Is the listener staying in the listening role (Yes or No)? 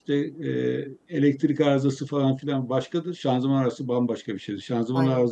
Yes